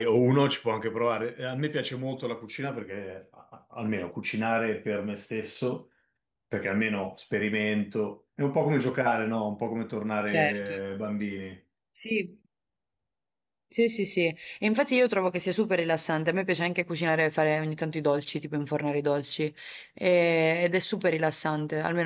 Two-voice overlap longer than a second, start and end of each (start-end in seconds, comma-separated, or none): none